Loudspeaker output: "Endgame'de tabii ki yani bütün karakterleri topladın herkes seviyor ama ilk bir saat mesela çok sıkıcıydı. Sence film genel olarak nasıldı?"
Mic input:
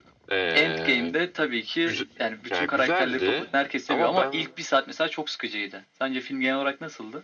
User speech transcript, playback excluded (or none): Ee, Güzel, ya güzeldi ama ben